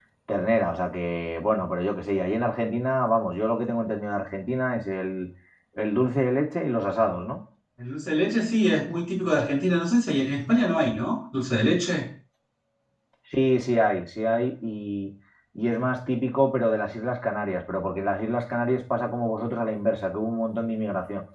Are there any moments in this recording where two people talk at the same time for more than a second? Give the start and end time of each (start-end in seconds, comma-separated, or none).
none